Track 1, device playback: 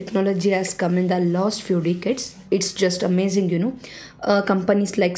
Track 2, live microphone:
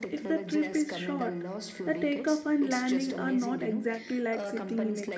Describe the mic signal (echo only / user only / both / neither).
both